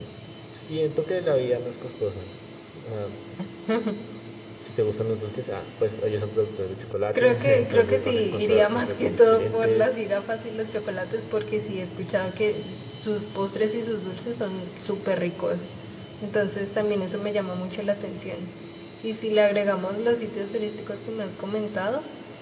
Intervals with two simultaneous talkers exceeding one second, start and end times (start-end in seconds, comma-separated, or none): 7.2-9.9